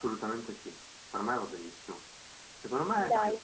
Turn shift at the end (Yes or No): No